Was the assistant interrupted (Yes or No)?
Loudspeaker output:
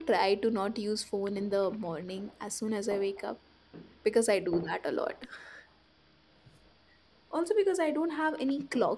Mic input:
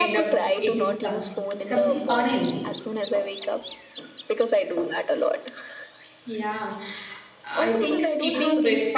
Yes